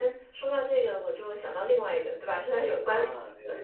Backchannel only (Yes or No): No